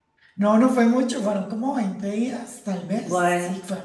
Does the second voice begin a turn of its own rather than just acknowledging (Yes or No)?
No